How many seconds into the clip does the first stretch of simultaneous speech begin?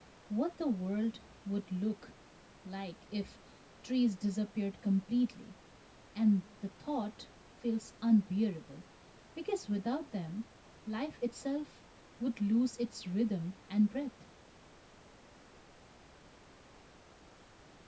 none

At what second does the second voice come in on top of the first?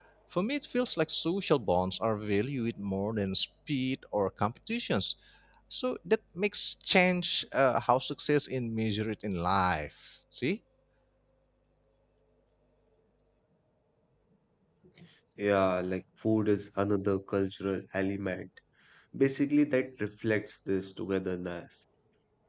none

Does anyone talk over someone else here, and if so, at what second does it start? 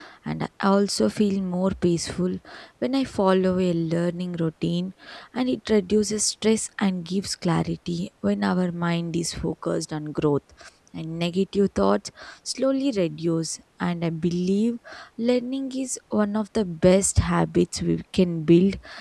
none

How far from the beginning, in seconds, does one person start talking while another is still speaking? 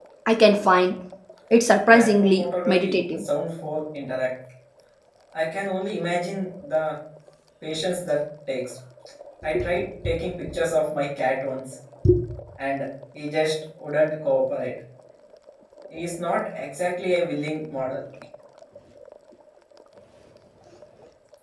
1.9 s

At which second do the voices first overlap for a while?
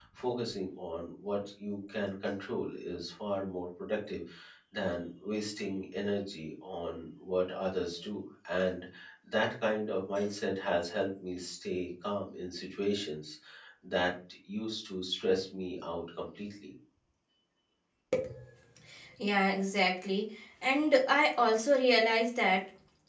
none

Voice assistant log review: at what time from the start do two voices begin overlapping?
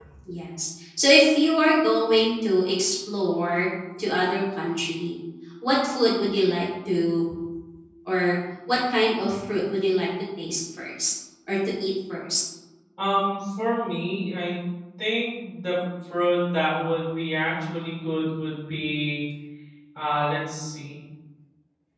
none

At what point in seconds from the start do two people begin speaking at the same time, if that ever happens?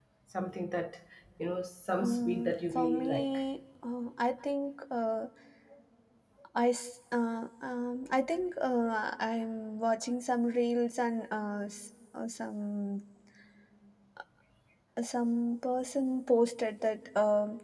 2.0 s

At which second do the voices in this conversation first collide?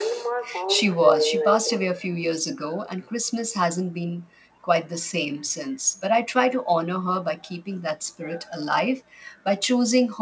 0.7 s

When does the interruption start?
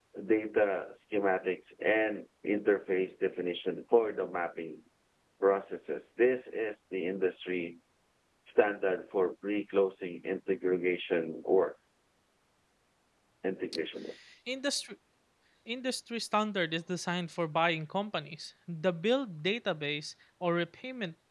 none

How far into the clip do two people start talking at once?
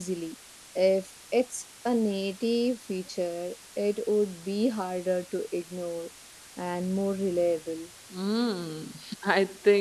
none

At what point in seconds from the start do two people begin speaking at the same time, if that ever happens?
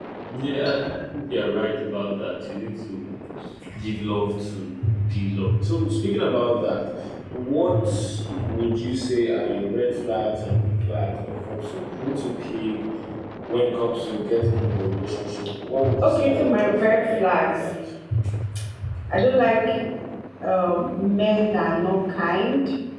16.0 s

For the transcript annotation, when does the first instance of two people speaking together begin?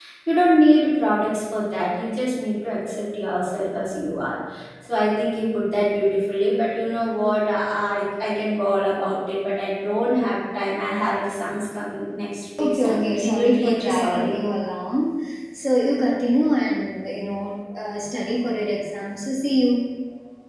12.6 s

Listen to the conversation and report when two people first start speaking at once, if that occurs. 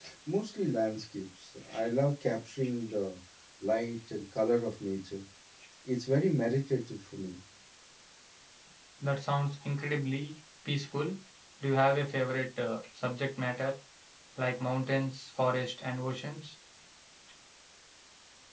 none

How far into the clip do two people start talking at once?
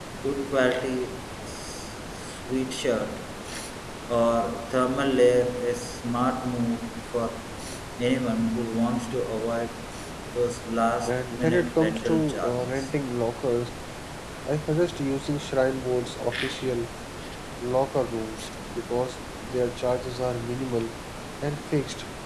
11.1 s

